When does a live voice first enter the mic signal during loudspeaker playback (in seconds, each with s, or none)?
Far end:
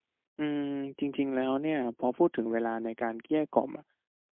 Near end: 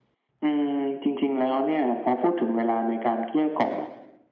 none